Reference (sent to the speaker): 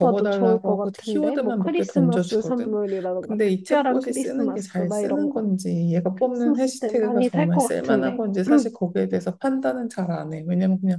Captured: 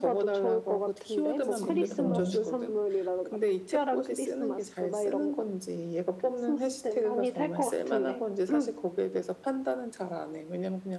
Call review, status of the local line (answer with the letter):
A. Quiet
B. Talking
B